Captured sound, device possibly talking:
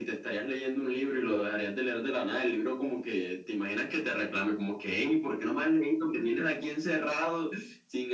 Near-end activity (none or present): none